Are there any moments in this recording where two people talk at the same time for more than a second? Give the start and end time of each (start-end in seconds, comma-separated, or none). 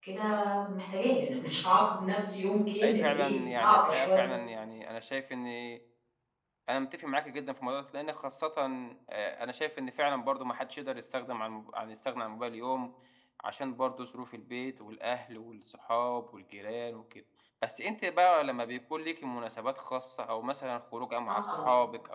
2.8-4.3